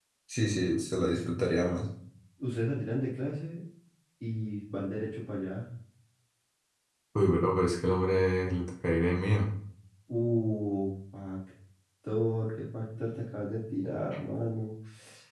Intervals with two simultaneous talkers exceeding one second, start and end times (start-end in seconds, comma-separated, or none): none